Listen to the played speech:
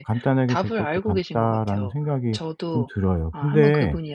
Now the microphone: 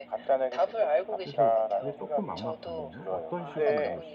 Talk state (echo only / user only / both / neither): both